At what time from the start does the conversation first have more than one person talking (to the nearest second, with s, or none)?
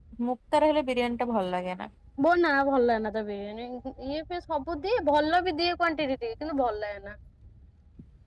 none